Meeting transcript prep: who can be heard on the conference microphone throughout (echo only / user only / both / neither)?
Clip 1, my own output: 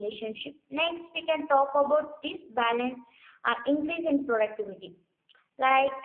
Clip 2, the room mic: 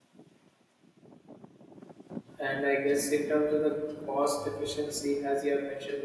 user only